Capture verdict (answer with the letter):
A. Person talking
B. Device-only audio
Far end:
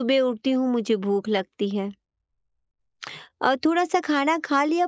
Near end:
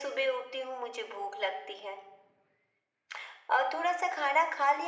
B